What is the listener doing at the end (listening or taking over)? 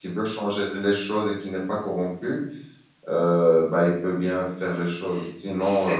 listening